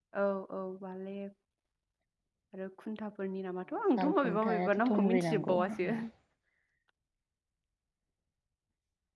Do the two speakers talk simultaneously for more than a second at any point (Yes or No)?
Yes